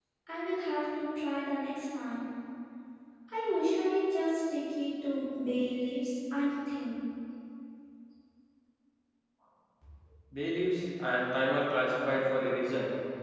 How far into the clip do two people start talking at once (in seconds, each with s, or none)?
none